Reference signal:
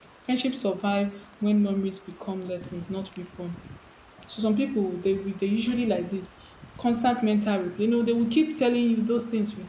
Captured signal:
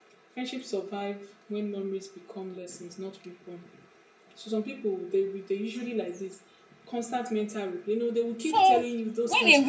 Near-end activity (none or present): present